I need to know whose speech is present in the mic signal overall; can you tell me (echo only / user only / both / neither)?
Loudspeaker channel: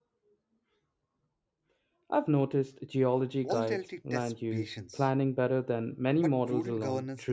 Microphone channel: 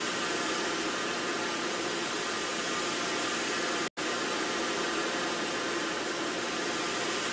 neither